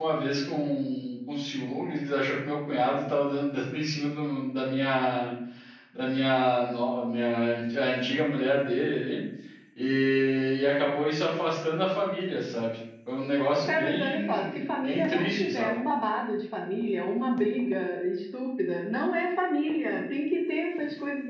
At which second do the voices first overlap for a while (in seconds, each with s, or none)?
13.7 s